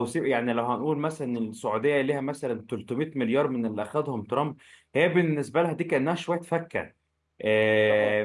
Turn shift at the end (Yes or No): No